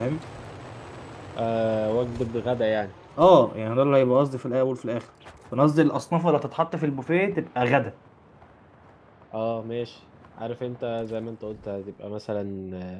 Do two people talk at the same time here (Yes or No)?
No